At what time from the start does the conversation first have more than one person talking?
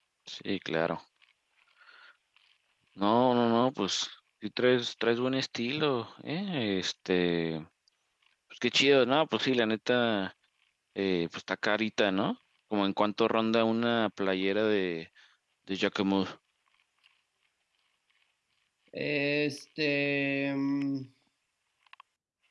none

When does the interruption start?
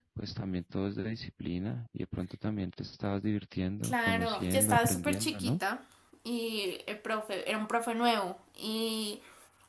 3.8 s

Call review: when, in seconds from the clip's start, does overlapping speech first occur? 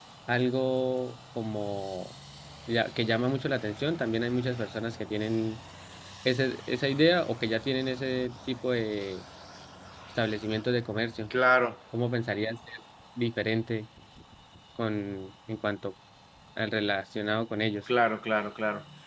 none

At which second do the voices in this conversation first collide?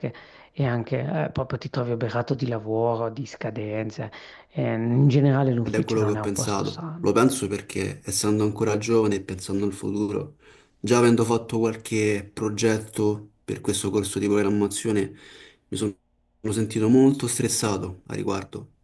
5.6 s

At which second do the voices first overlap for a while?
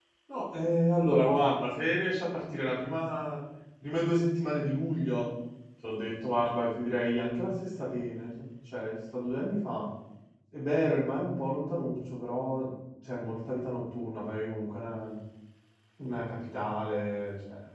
none

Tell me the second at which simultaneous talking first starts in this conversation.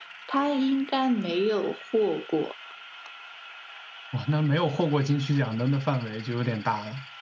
none

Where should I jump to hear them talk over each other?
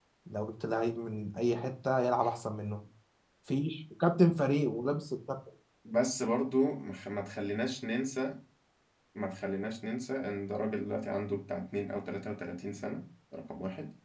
none

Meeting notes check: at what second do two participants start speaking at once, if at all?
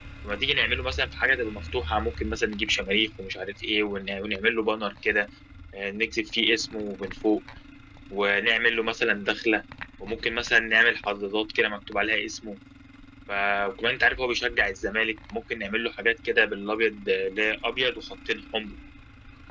none

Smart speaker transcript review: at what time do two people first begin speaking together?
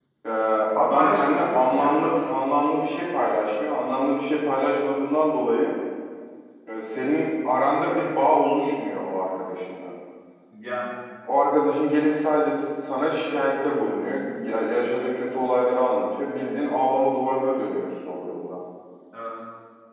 0.8 s

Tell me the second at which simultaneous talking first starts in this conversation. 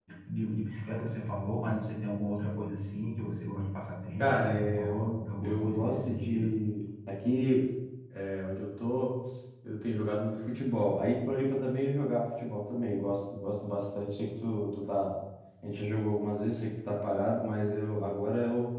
4.2 s

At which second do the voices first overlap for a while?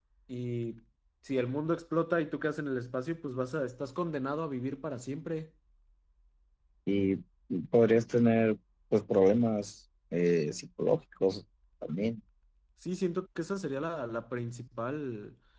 none

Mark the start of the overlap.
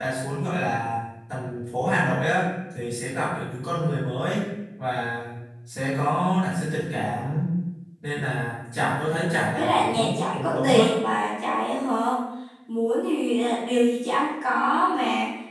9.6 s

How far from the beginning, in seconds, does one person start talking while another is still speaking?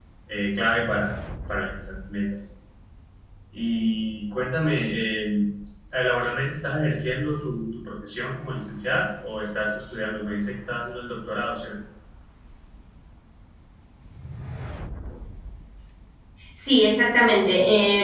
none

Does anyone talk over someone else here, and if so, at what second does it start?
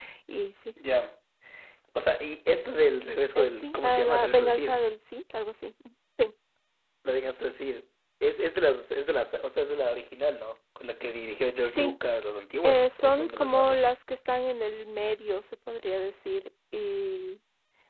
3.4 s

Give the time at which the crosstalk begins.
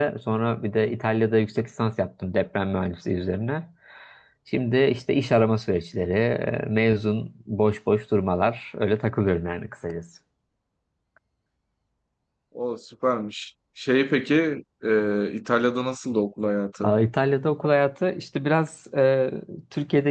none

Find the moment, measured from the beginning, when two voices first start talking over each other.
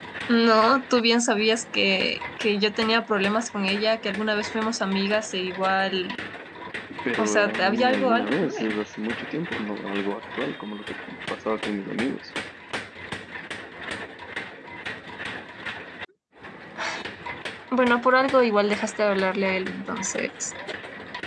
7.2 s

